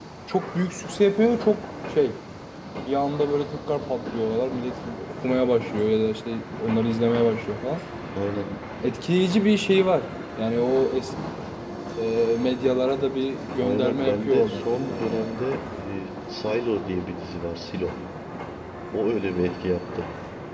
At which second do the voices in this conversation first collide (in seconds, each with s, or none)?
13.6 s